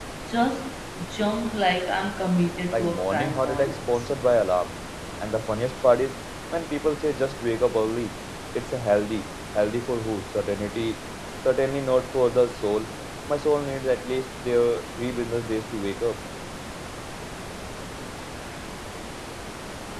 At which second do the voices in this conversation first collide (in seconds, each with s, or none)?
2.7 s